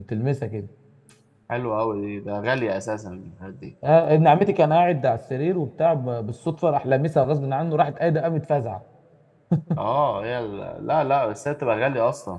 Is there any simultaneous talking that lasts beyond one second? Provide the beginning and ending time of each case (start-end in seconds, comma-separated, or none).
none